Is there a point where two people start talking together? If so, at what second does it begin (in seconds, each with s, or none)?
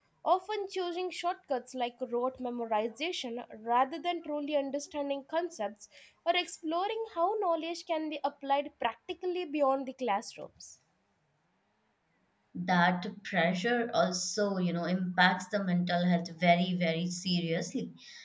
none